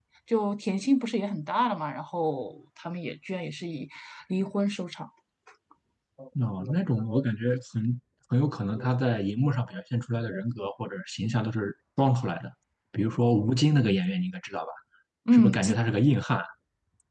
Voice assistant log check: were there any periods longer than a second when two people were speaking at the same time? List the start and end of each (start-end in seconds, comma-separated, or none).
none